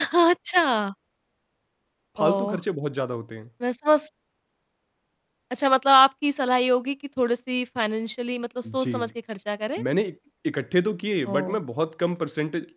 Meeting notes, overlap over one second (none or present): none